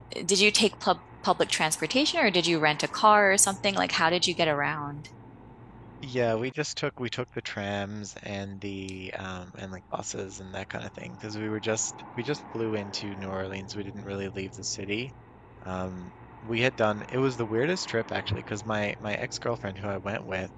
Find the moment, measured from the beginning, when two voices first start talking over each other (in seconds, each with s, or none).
none